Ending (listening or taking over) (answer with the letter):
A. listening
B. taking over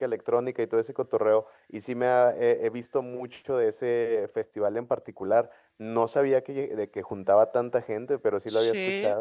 B